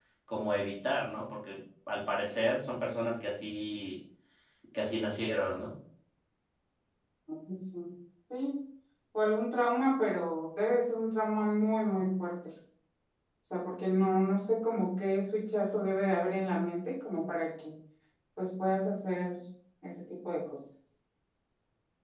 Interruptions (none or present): none